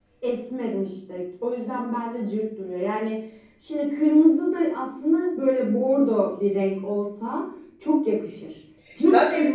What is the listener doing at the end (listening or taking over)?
taking over